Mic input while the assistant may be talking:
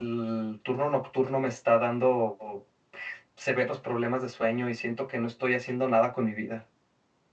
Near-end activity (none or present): present